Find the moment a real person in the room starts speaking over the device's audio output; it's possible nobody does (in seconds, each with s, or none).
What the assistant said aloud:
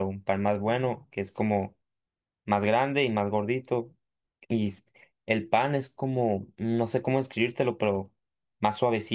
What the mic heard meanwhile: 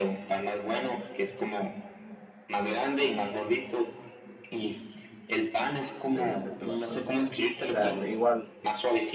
6.1 s